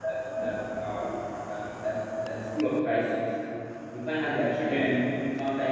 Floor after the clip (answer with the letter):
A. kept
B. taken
A